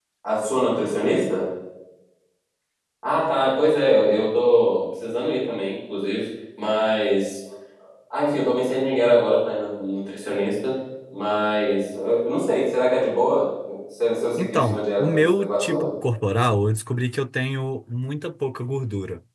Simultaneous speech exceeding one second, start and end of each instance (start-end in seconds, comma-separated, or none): 14.4-15.9